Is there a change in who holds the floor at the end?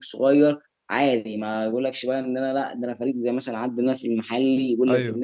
No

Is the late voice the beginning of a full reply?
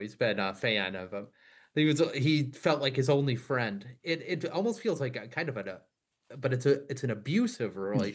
Yes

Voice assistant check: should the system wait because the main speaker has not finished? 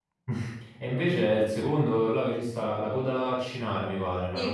No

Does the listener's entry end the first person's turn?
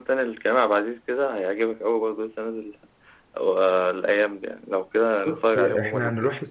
Yes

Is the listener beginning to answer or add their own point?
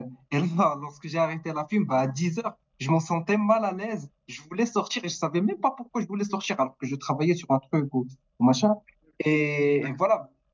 No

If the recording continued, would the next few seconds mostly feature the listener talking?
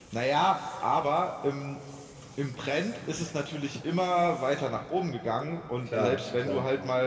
No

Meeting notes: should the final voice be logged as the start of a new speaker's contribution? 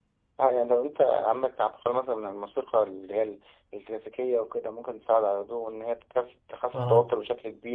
No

